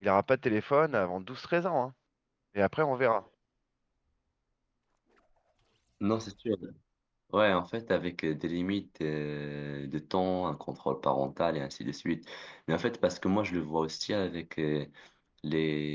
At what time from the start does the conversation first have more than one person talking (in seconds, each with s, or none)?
none